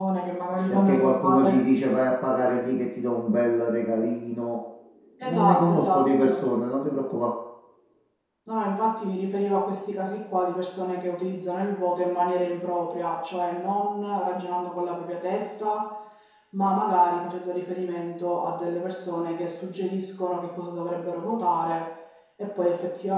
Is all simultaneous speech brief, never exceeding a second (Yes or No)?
No